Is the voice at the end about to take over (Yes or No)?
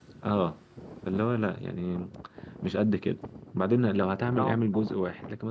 No